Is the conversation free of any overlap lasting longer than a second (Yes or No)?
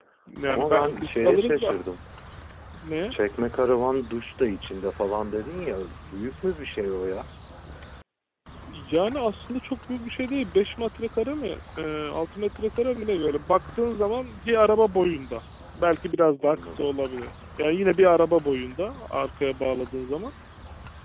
No